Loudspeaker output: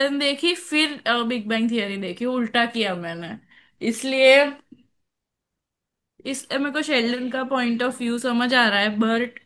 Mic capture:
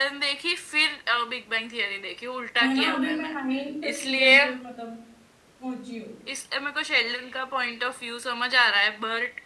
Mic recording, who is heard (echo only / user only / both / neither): both